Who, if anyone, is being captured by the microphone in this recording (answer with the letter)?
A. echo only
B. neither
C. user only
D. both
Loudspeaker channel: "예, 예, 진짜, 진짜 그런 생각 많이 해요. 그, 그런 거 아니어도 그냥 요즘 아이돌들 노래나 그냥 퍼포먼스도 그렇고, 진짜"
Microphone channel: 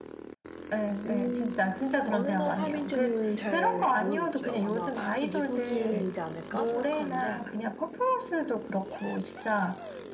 D